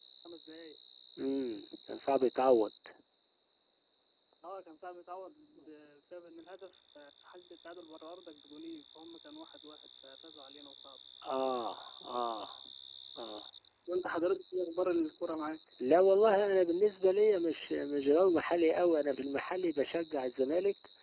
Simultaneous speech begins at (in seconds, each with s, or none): none